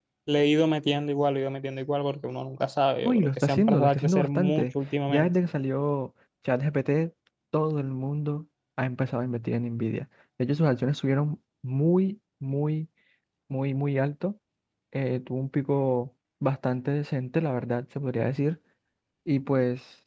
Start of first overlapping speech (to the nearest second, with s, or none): 3 s